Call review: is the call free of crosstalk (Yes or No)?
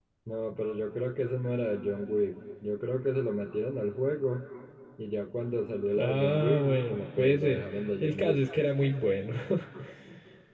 No